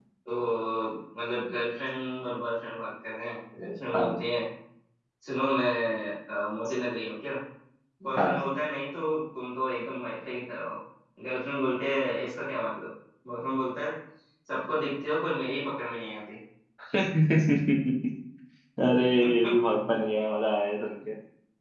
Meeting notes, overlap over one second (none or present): none